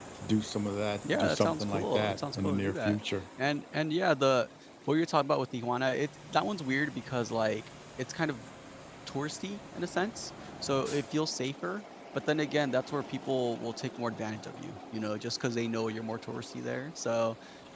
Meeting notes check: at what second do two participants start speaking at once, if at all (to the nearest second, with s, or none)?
1 s